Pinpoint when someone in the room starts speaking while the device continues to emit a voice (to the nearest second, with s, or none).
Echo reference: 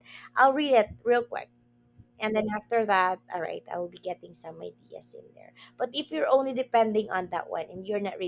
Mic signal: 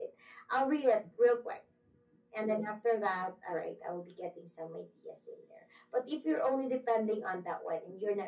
none